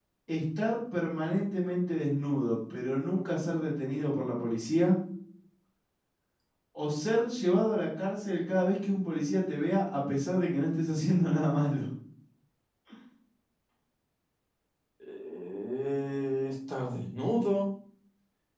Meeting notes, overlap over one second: none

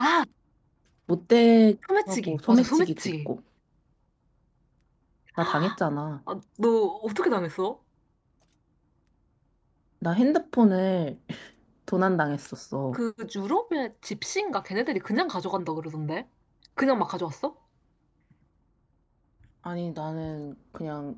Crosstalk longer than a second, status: present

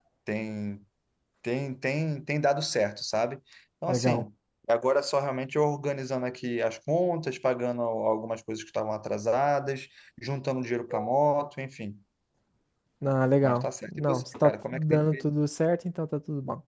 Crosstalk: present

